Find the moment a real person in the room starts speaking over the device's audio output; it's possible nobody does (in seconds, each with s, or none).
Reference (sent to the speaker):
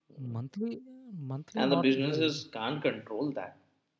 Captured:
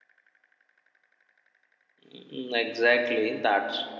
2.1 s